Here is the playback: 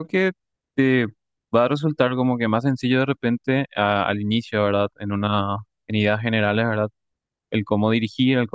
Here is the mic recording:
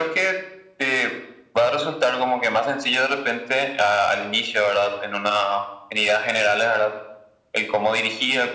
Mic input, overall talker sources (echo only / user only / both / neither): echo only